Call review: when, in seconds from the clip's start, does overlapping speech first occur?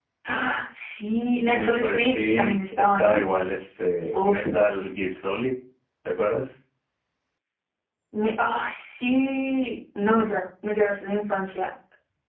1.5 s

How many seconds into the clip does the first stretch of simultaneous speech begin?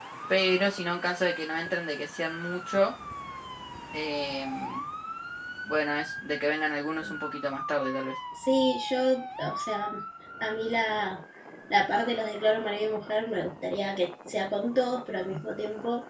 none

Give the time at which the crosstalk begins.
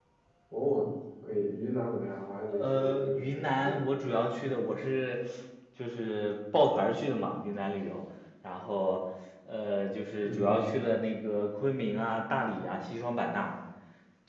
2.6 s

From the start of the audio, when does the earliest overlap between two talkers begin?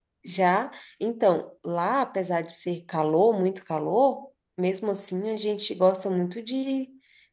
none

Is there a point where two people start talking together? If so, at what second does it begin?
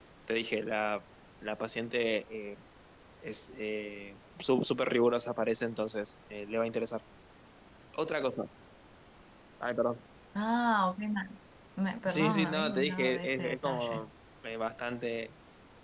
12.1 s

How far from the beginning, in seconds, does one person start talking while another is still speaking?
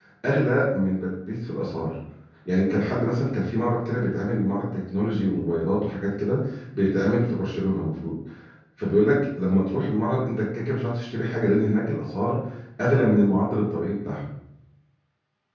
none

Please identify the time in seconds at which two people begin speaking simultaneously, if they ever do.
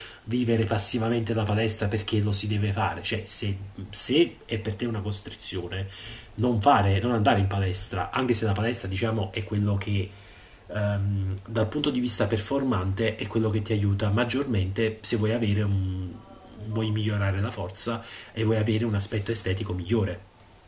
none

